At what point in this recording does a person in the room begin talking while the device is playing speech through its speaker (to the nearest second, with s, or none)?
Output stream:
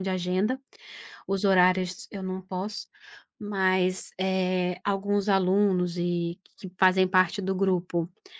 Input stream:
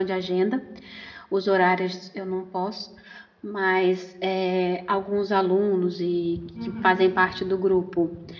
7 s